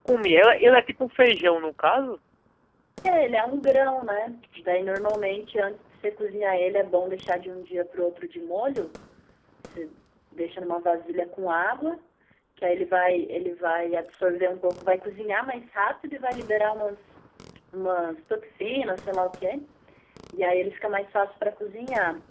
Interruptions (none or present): none